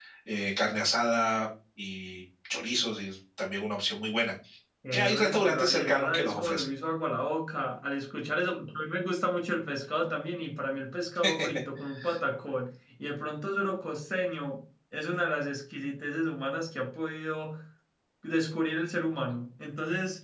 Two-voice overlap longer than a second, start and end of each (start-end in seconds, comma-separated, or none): 4.9-6.7